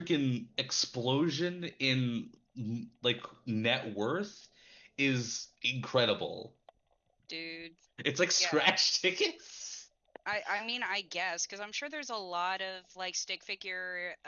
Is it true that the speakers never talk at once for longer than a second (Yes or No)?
Yes